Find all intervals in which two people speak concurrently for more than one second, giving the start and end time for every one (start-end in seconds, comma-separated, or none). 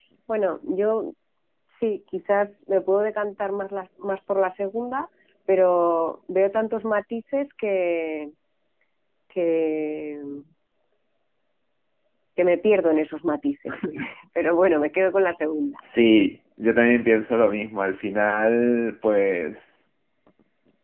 none